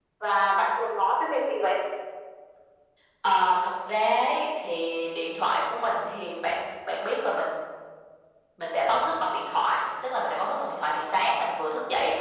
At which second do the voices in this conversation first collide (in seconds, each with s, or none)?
none